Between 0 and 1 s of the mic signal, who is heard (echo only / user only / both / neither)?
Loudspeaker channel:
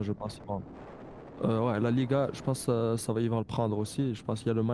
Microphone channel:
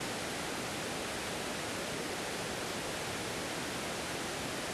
neither